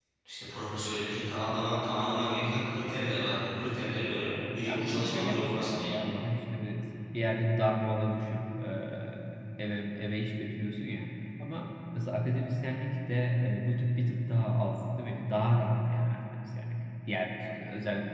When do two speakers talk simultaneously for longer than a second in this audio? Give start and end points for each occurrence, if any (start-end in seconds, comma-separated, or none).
4.7-6.0